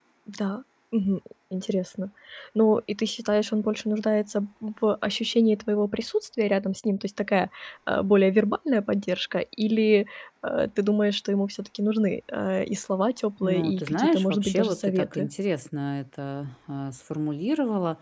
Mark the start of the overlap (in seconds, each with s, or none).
13.4 s